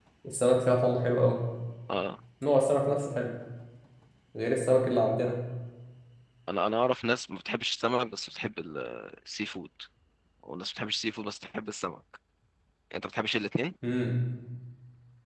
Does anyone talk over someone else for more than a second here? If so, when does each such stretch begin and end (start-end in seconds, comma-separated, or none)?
none